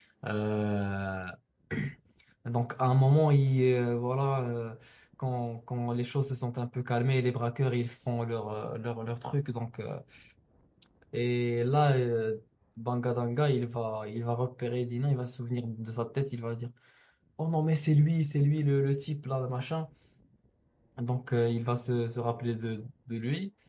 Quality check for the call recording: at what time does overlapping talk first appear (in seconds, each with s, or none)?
none